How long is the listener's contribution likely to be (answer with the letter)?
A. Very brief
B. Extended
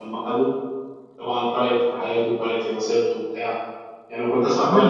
A